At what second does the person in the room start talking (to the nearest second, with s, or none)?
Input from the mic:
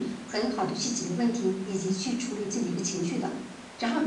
none